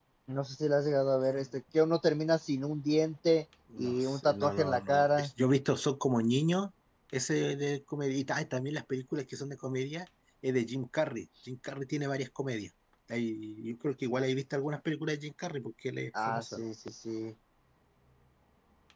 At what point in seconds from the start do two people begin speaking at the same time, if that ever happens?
3.8 s

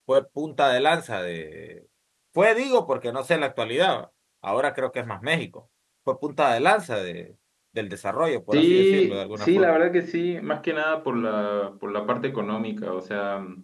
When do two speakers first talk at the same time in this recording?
8.5 s

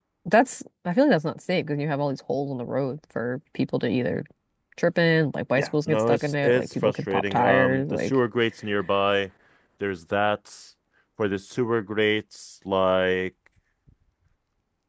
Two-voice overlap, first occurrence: 5.6 s

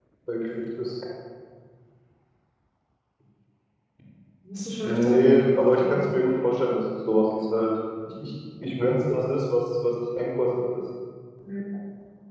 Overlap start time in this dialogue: 4.8 s

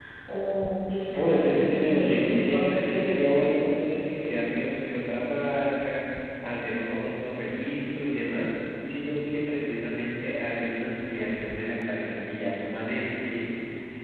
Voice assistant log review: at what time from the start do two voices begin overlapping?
1.1 s

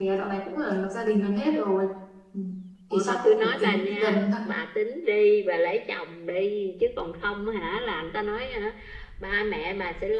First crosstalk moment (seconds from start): 2.9 s

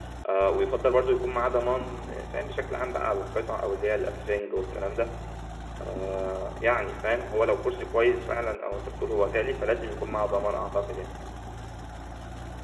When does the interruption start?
none

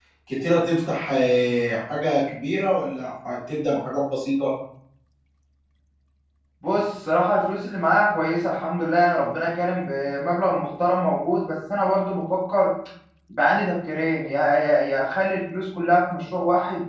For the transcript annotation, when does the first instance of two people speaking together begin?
none

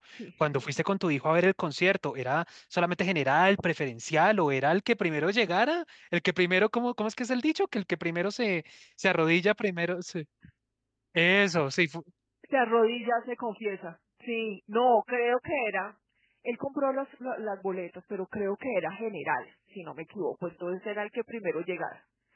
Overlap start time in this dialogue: none

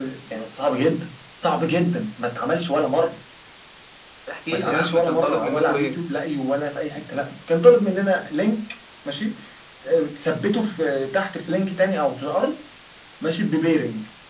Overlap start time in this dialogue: 4.5 s

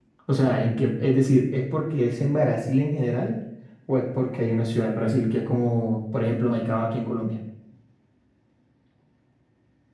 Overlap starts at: none

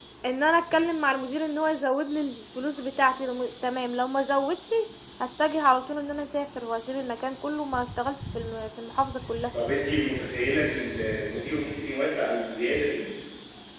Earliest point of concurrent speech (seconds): none

